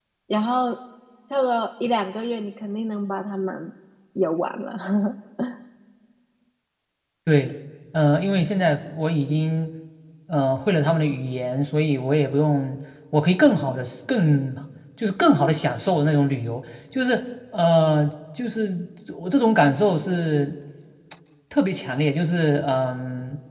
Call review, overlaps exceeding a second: none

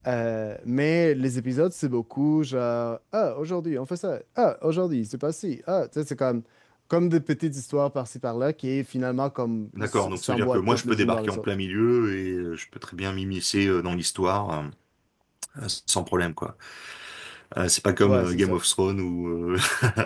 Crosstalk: present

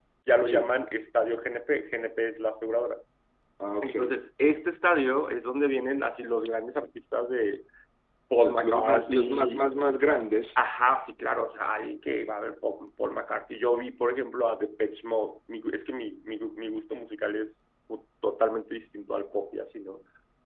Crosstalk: present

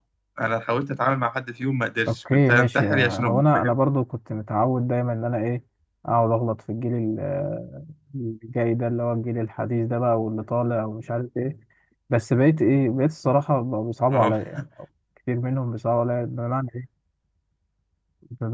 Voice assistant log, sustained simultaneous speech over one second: present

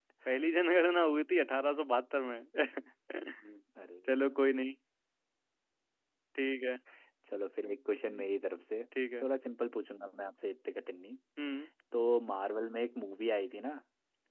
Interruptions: none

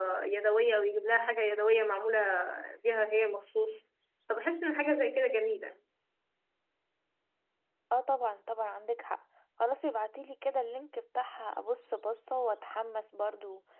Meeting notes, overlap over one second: none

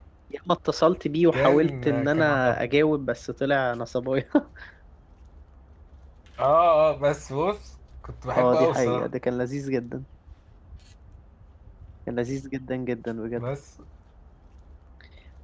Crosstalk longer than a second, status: present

